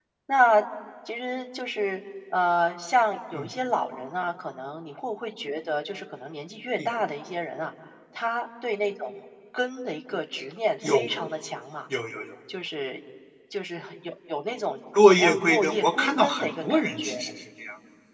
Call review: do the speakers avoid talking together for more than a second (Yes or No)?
No